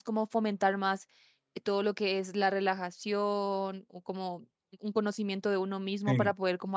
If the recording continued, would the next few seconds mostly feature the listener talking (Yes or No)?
No